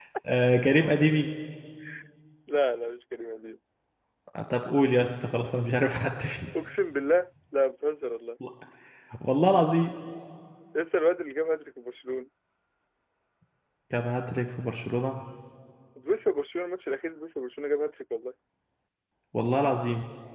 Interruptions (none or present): none